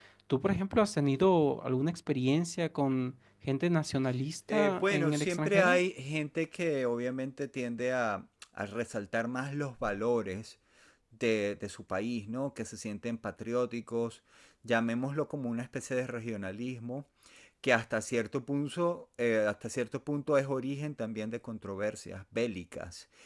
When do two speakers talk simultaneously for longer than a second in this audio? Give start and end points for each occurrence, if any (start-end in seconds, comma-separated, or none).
4.5-5.8